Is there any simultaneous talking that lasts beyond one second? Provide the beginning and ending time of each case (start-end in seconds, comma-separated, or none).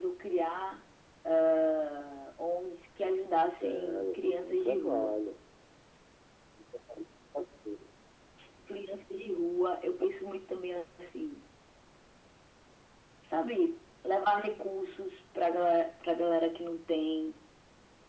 3.5-5.2